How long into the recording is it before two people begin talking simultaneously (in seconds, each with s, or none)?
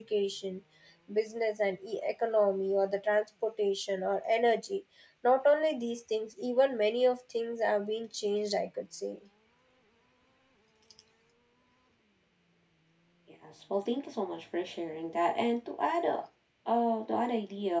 none